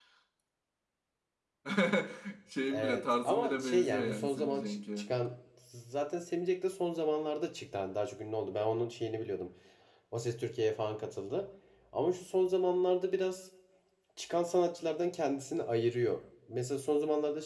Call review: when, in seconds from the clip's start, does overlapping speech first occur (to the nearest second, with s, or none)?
3 s